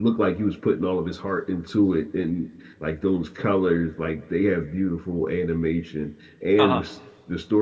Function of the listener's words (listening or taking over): listening